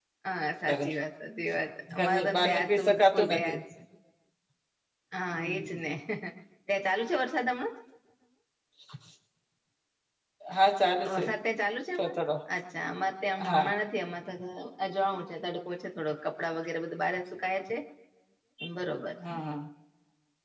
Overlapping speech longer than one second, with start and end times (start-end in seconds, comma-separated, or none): 1.9-3.5